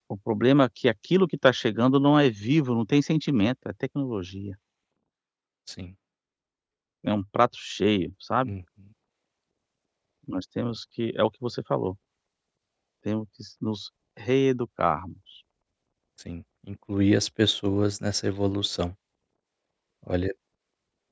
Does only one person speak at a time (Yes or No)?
Yes